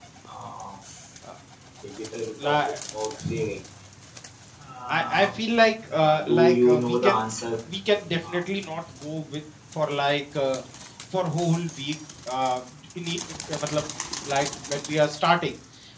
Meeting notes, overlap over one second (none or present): present